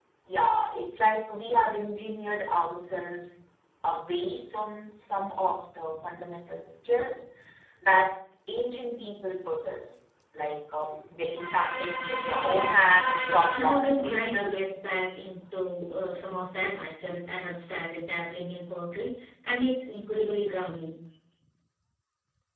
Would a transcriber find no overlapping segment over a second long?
No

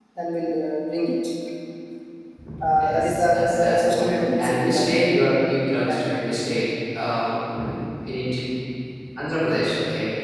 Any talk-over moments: Yes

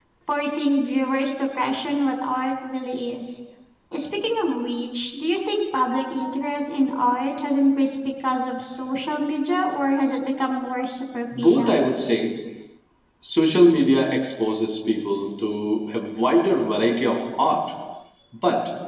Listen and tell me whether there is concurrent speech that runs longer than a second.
No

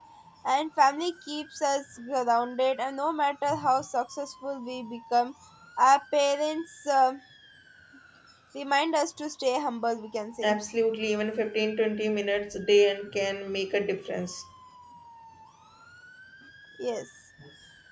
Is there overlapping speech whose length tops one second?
No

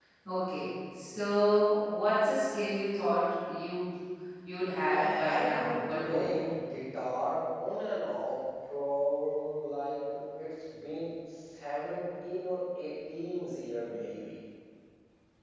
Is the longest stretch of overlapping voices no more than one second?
No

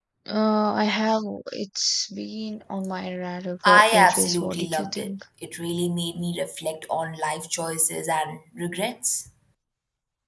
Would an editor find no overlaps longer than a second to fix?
No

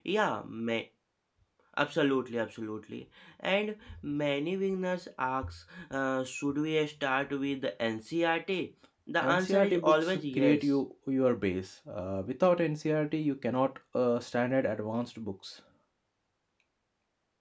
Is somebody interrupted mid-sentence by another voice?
Yes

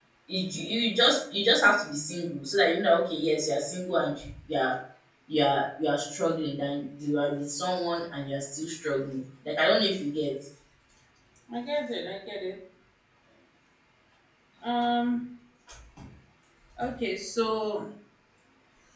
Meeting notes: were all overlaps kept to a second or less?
Yes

